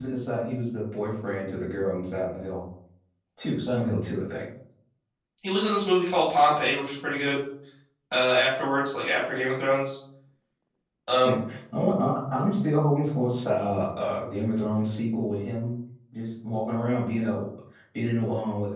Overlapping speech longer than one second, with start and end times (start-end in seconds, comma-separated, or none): none